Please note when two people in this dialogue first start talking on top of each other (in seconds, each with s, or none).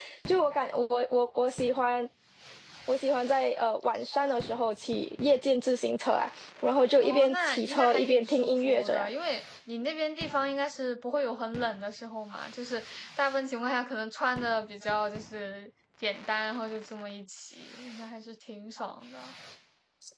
7.0 s